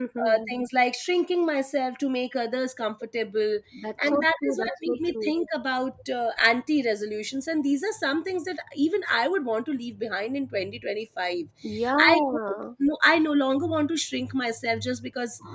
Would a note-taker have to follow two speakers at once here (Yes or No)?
Yes